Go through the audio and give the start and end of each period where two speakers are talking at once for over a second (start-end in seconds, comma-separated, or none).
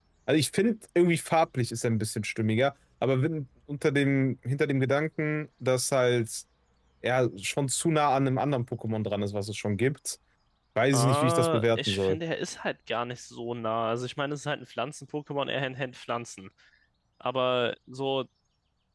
10.9-12.2